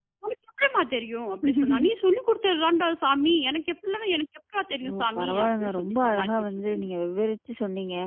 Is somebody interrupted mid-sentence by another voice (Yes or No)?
Yes